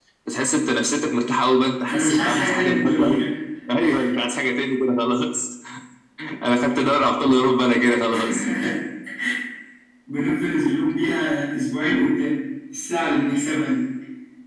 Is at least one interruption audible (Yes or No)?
Yes